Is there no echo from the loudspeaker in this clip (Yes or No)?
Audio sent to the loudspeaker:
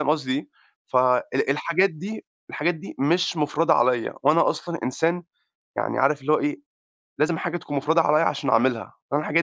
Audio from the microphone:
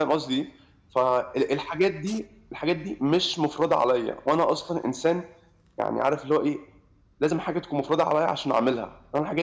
No